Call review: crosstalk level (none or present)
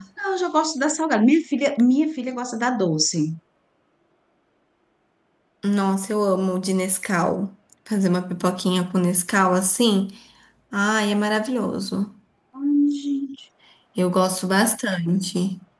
none